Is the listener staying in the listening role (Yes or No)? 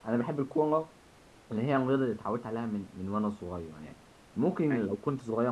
Yes